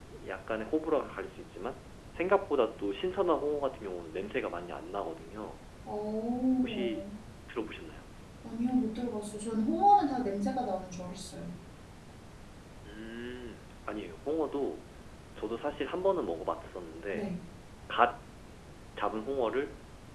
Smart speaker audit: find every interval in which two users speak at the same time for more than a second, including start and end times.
none

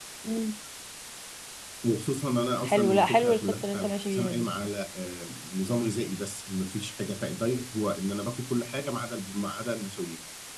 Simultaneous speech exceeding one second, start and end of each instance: 2.6-4.5

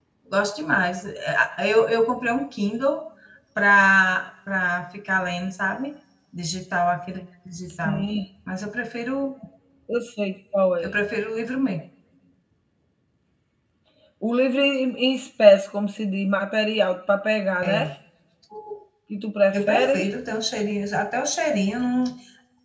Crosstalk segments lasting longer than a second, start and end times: none

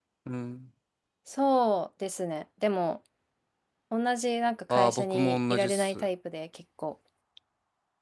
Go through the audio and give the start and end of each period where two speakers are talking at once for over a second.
4.7-6.1

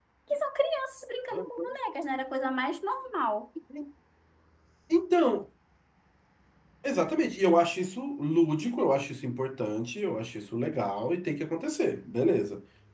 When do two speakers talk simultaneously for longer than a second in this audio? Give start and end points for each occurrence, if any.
none

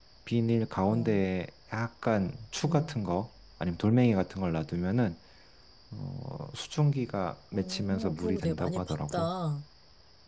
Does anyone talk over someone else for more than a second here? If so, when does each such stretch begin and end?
7.5-9.3

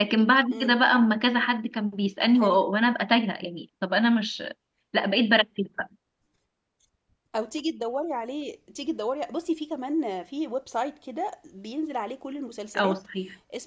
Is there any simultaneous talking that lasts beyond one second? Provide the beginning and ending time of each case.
none

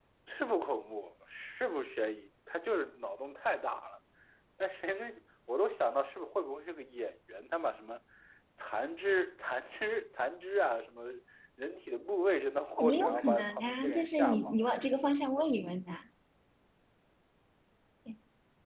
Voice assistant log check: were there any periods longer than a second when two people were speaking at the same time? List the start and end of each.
12.9-14.5

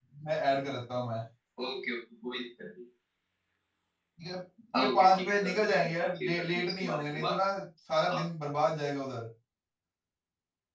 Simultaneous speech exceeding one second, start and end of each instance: 4.8-7.4

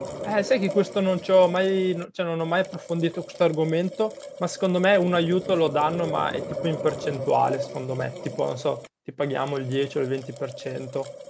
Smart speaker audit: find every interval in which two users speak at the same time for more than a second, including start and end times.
none

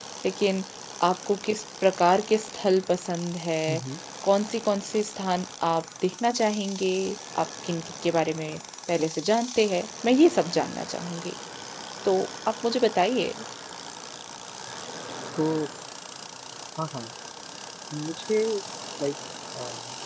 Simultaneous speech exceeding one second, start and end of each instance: none

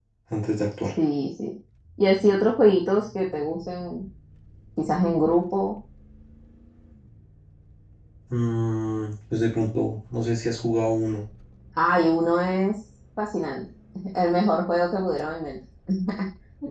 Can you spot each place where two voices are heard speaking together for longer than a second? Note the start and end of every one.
none

